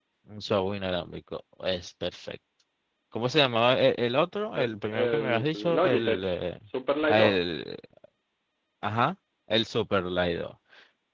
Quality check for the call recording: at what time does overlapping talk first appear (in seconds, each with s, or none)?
4.5 s